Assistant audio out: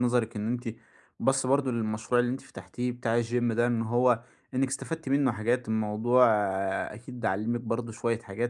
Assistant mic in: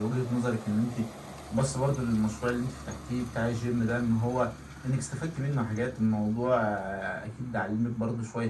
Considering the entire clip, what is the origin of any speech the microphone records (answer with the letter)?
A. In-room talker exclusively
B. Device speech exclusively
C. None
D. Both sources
B